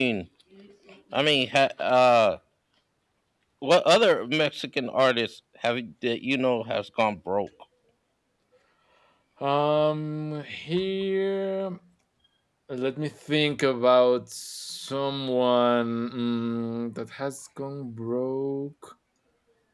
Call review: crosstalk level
none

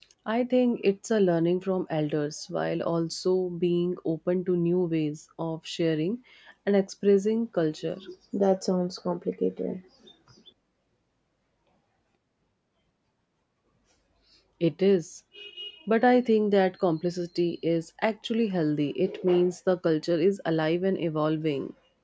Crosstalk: none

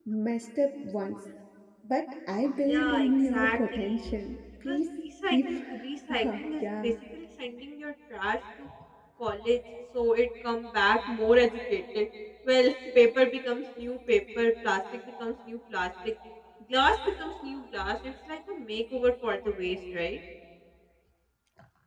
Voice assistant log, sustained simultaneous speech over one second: present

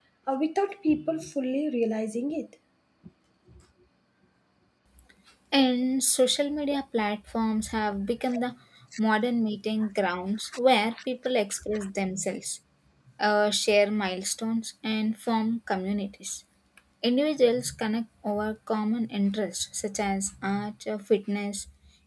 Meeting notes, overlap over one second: none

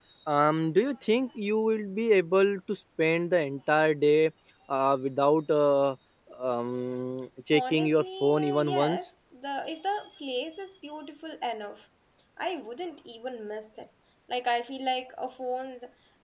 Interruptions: present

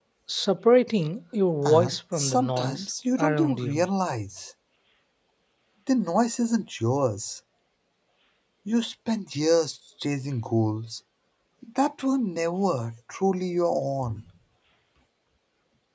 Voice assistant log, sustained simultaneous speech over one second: present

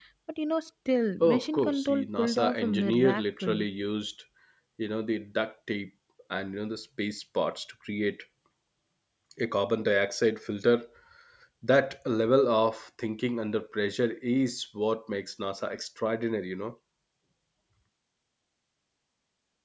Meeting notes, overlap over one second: present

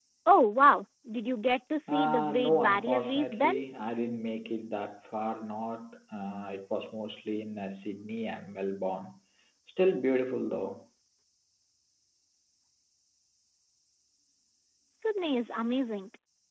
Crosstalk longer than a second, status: present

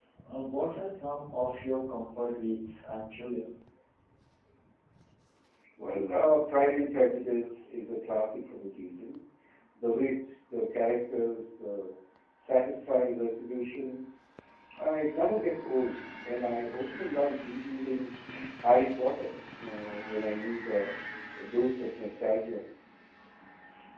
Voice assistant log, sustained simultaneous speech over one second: none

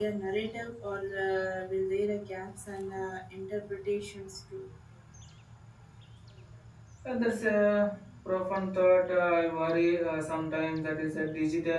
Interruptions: none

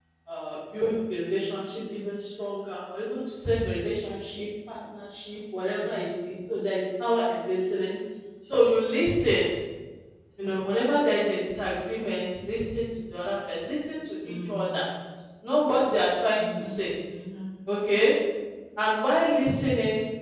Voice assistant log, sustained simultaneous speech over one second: none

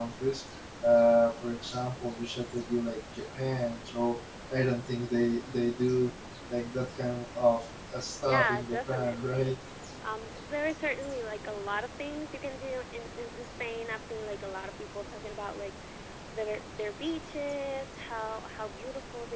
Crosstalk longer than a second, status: present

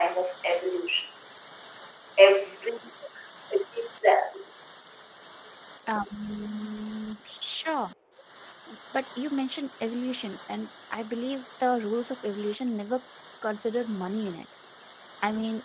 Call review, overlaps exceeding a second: none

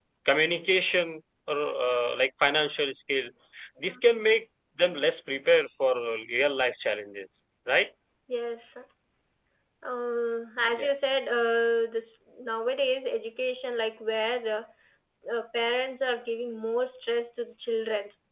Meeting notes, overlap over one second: none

